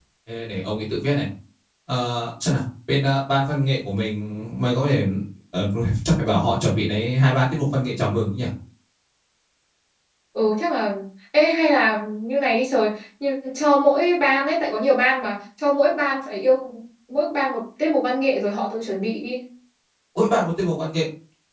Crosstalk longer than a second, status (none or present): none